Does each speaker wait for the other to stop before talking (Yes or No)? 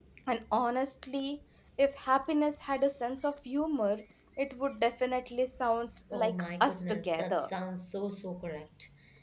No